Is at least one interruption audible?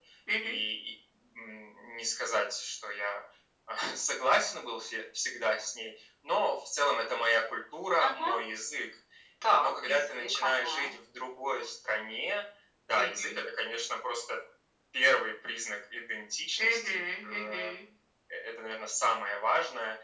Yes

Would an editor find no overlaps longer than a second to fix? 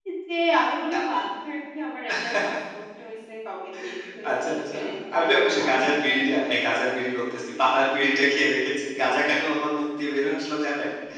No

